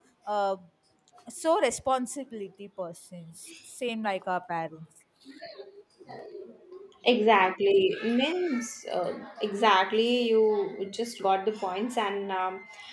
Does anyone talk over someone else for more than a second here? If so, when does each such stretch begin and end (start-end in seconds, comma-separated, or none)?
none